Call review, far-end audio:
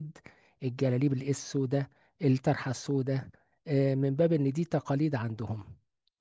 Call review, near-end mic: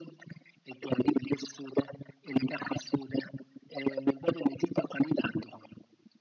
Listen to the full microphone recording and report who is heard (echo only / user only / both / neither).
echo only